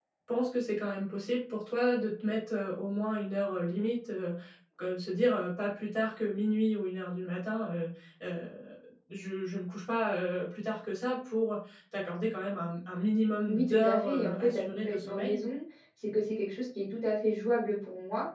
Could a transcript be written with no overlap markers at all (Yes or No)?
No